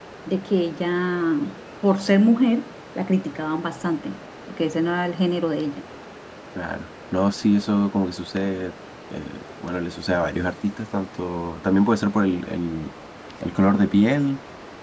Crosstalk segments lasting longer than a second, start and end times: none

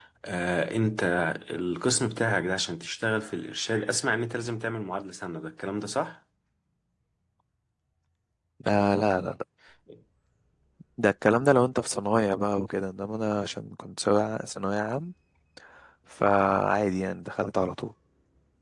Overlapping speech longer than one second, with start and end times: none

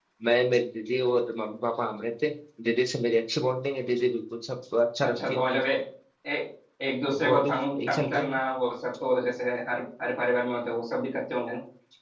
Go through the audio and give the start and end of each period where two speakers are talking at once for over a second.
7.1-8.4

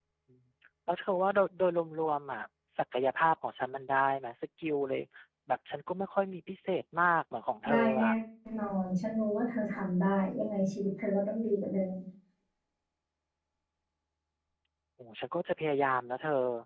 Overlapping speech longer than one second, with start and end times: none

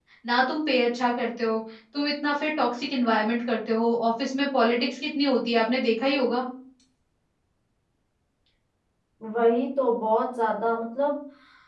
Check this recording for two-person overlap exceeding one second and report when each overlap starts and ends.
none

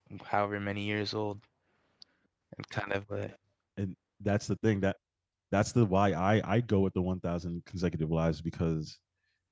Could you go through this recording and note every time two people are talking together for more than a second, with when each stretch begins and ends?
none

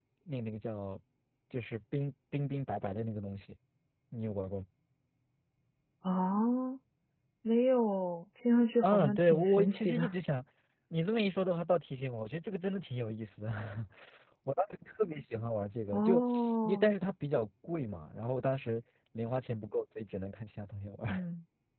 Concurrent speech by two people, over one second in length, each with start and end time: 8.8-10.1

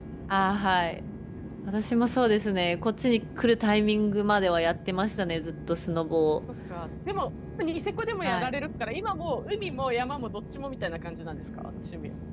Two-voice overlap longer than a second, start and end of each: none

